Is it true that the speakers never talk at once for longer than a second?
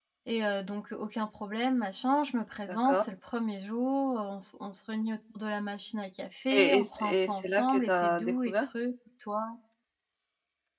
No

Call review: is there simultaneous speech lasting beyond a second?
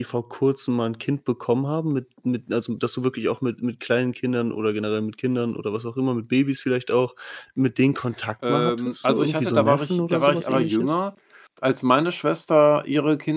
Yes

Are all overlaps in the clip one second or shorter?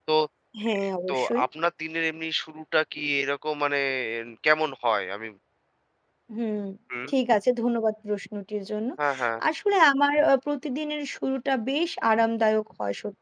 Yes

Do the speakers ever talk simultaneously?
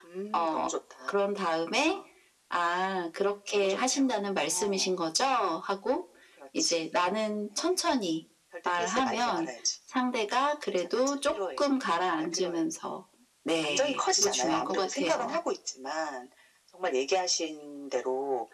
Yes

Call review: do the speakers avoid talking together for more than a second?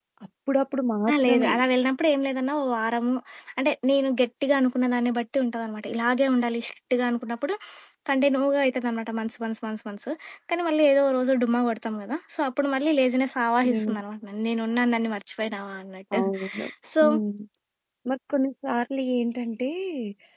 Yes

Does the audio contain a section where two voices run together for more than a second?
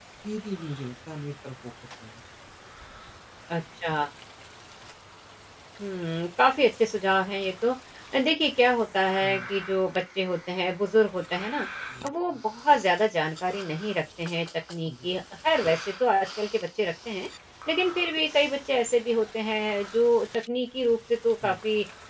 No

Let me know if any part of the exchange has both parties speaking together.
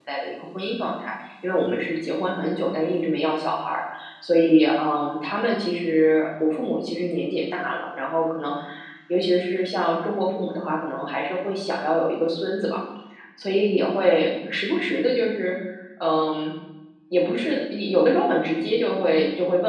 No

